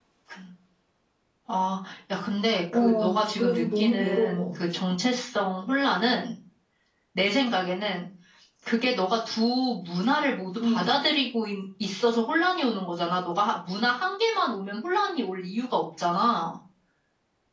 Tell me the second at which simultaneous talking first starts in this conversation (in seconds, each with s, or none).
2.7 s